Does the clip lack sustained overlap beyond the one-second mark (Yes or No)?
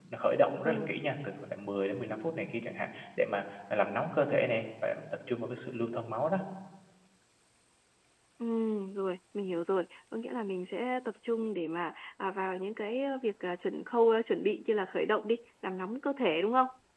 Yes